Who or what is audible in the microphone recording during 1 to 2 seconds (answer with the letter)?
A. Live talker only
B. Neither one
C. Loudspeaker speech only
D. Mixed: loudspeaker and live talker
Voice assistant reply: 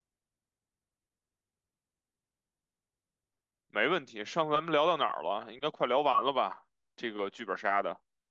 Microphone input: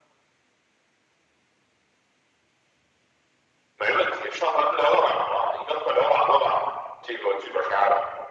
B